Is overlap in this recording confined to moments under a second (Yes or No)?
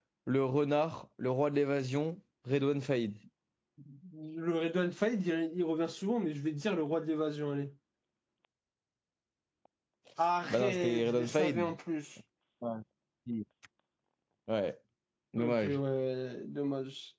No